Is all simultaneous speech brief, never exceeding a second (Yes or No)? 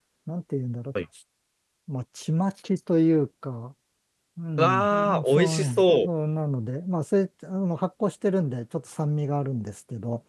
No